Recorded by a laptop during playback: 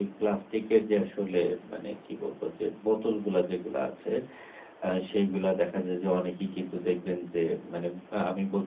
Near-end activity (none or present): none